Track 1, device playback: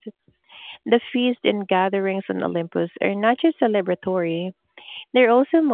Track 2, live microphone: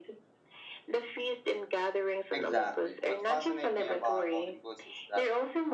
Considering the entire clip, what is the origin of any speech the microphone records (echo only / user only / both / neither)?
both